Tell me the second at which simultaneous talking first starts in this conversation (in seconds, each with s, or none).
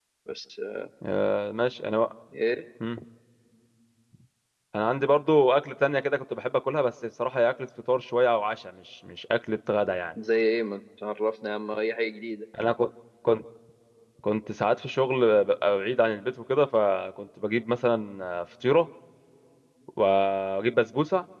none